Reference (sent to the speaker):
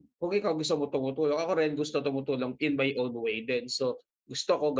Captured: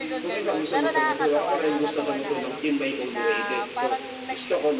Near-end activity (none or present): present